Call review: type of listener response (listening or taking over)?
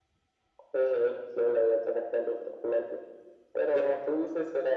listening